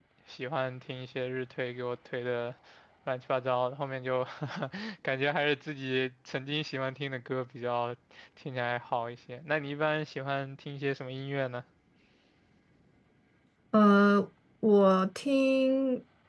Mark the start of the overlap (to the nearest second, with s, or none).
none